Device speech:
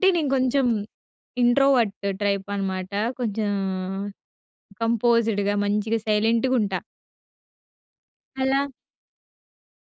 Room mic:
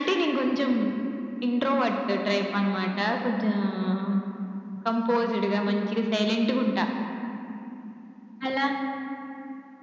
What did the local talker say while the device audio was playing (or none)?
none